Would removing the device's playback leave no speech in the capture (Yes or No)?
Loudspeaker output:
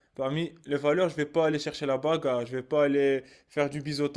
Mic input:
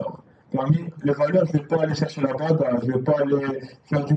Yes